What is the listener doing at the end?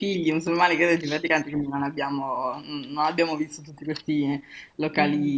listening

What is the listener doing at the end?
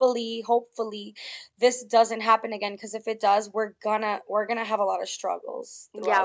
taking over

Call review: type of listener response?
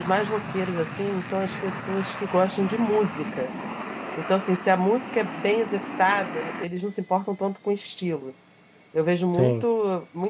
listening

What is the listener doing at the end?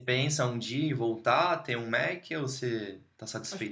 taking over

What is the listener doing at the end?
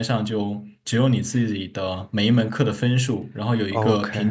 listening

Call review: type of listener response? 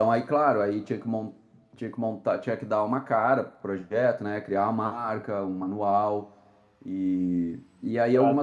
listening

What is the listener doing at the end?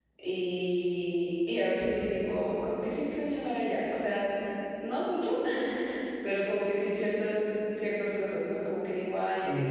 listening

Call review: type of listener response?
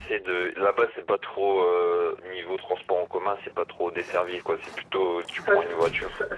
taking over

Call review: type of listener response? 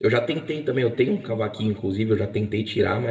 listening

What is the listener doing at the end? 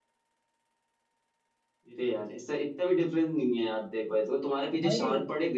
listening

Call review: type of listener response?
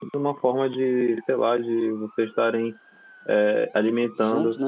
listening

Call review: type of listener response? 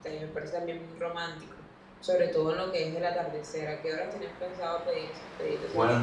taking over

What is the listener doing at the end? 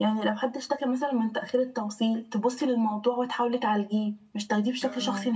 taking over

